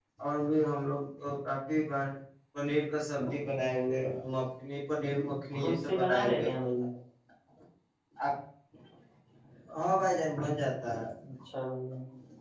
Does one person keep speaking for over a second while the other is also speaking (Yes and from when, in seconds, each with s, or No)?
Yes, from 5.5 s